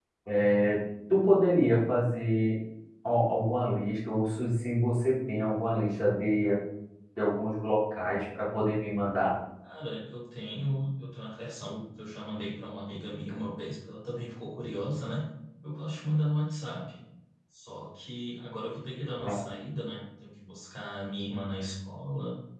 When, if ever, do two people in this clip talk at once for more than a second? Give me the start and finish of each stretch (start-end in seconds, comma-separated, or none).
none